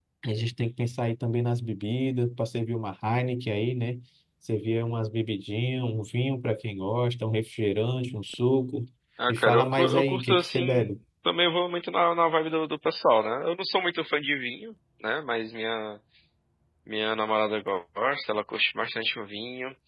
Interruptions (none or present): present